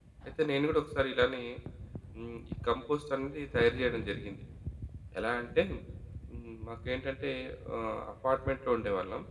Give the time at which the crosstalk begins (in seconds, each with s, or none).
none